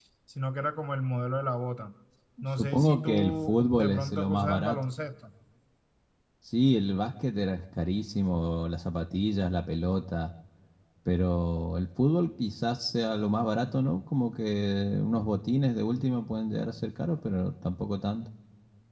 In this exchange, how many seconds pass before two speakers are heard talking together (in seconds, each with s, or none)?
2.5 s